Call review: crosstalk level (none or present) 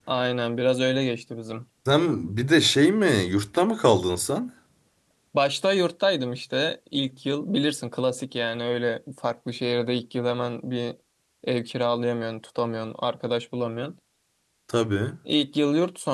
none